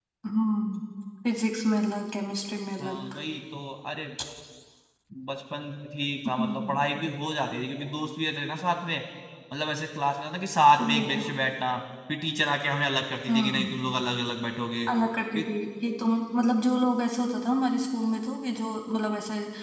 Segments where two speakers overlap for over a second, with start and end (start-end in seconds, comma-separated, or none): none